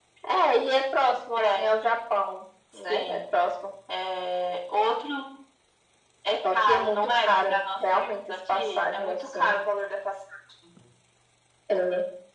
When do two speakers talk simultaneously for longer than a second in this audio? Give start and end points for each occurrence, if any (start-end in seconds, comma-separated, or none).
6.5-9.6